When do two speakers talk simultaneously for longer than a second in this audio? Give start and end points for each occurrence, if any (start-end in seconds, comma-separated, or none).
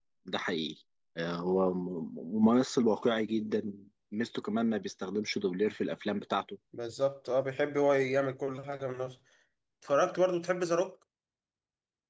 none